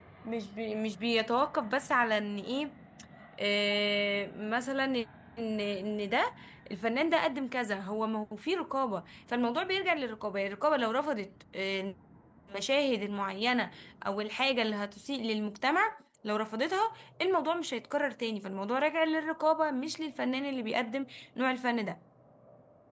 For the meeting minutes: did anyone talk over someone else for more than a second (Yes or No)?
No